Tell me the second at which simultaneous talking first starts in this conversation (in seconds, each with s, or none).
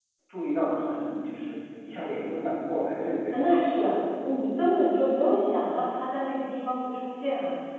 none